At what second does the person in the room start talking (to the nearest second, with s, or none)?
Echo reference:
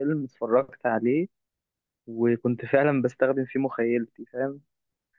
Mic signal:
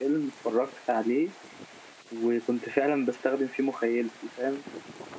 none